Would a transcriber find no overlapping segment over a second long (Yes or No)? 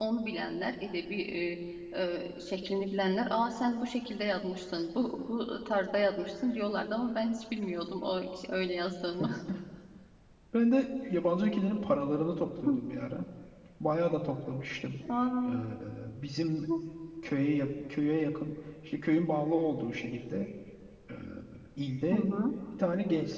Yes